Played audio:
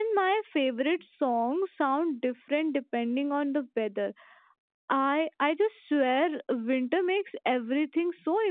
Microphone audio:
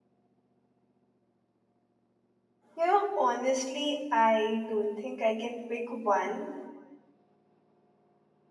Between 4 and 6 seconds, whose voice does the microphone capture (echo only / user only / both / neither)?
user only